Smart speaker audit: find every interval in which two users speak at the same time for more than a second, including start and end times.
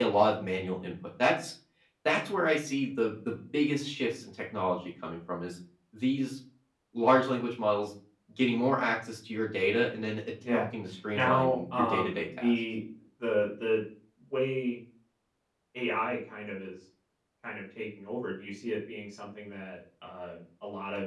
11.1-12.5

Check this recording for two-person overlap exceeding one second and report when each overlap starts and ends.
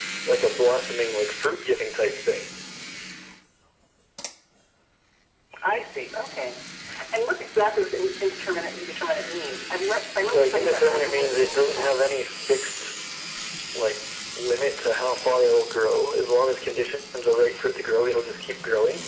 10.3-12.0

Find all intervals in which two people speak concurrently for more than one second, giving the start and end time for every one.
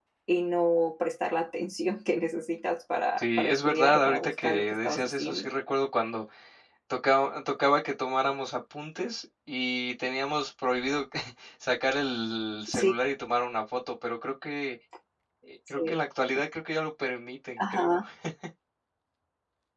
3.2-5.5

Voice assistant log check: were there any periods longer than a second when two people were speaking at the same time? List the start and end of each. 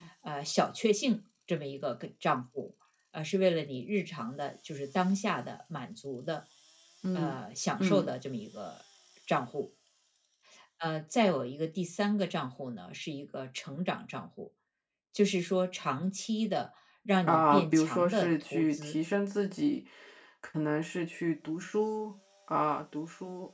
17.2-19.0

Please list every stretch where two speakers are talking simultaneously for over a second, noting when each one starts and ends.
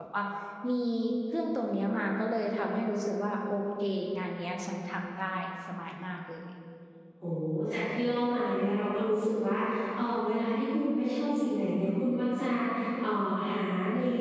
none

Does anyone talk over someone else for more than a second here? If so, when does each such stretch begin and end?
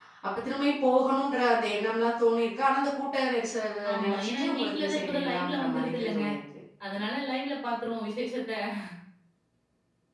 4.0-6.2

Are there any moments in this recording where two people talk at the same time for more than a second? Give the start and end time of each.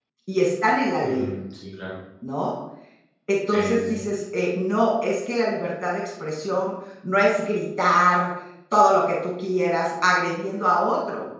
none

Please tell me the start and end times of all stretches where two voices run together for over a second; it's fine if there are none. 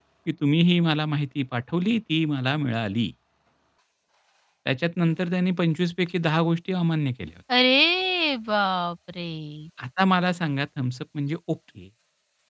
none

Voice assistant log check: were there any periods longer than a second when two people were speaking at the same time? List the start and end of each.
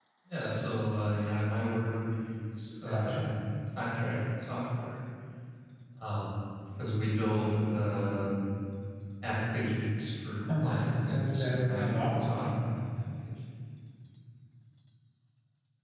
10.6-12.3

